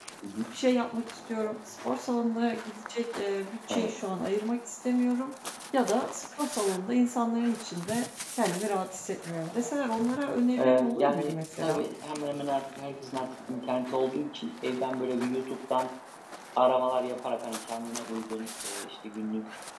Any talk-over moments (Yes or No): Yes